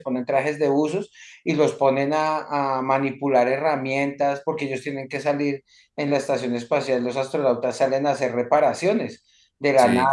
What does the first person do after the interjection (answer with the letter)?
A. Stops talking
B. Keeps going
B